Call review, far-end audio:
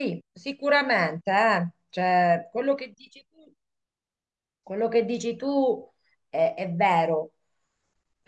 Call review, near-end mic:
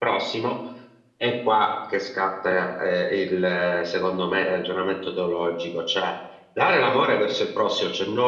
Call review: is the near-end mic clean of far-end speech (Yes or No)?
Yes